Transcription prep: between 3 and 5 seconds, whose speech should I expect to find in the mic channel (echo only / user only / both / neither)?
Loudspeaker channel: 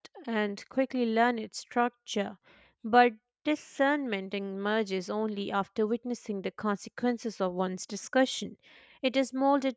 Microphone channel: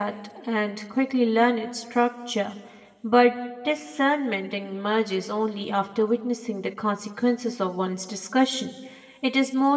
echo only